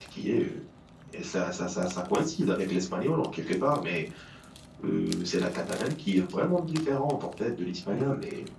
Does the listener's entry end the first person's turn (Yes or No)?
No